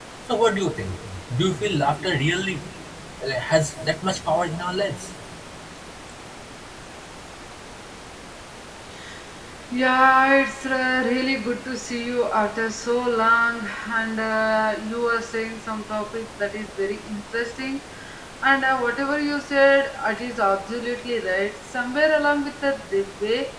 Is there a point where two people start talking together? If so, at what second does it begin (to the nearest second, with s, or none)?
none